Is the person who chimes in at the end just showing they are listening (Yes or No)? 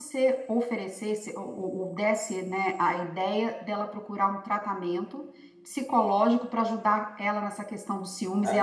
No